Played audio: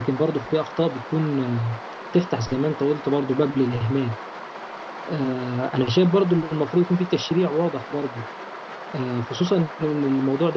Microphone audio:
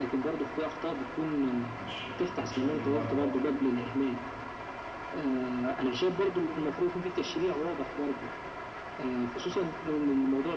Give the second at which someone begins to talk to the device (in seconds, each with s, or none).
1.8 s